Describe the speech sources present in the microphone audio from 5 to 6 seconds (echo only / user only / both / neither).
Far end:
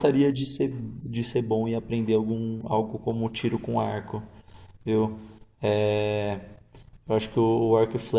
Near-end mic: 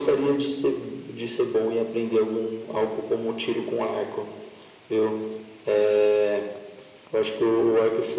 echo only